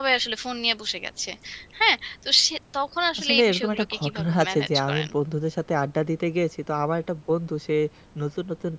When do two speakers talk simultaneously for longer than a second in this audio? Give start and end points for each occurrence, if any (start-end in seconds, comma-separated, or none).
3.2-5.1